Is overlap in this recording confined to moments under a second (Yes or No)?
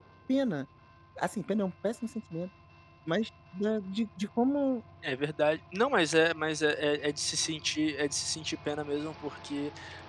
Yes